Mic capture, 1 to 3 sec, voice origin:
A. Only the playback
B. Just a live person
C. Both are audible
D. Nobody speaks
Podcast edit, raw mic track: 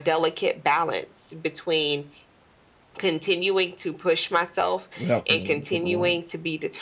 A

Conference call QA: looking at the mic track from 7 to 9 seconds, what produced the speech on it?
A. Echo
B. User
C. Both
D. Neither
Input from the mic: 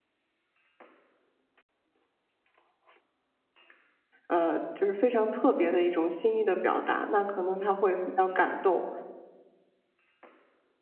B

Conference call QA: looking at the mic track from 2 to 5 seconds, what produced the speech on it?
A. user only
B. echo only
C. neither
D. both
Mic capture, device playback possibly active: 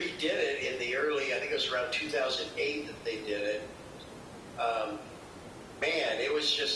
B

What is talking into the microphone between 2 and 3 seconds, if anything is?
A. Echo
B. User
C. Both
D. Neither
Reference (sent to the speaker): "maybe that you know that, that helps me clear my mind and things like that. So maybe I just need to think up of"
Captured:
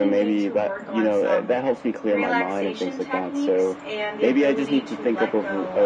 C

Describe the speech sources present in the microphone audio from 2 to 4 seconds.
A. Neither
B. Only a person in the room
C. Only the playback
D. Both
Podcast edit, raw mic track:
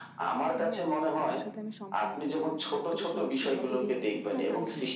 D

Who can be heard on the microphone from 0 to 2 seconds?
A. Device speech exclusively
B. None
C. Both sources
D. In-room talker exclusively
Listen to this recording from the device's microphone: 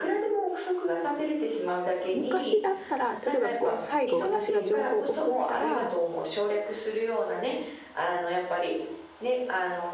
A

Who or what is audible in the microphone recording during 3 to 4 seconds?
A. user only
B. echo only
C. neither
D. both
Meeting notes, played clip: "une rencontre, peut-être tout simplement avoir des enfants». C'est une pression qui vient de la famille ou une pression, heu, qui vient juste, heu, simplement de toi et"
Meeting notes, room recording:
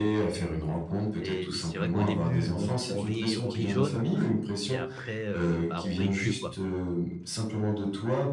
D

